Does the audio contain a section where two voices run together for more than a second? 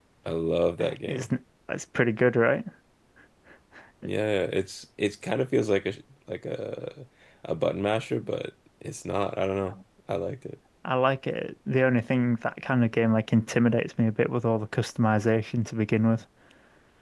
No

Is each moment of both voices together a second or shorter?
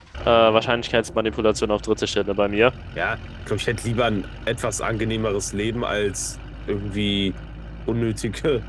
Yes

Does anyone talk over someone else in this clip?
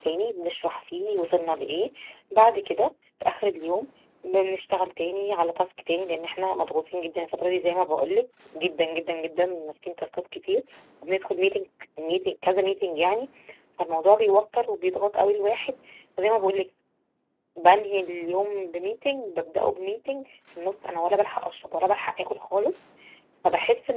No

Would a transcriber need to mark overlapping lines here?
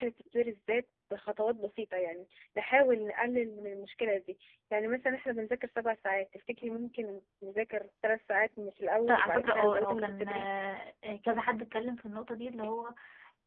Yes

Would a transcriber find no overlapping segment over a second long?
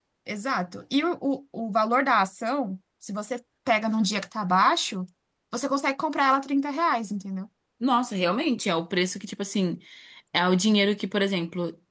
Yes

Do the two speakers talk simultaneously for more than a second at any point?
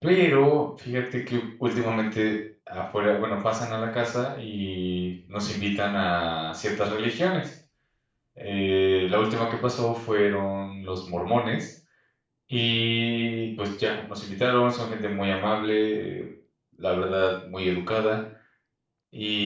No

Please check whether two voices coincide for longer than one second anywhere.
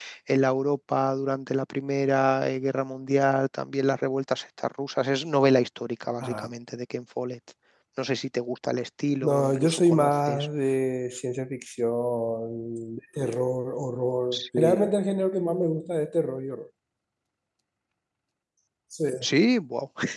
Yes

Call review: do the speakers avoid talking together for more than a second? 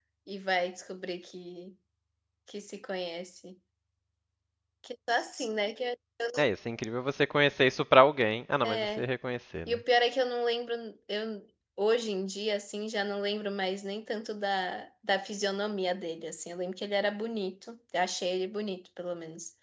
Yes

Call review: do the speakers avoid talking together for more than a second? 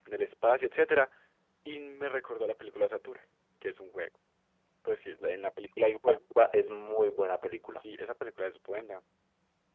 Yes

